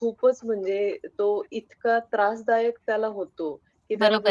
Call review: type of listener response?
listening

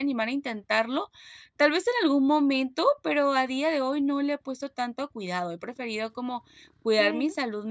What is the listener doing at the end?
listening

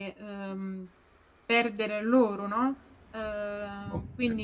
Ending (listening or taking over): taking over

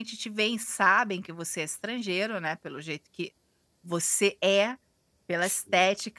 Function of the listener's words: listening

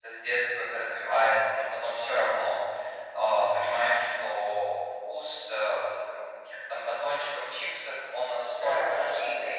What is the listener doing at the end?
listening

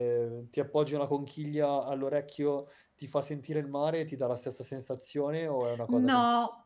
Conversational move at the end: taking over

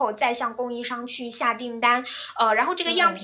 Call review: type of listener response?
listening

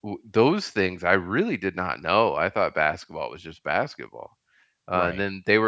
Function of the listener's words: listening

